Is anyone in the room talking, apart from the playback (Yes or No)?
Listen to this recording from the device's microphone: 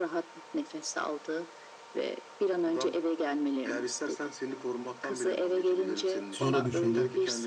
Yes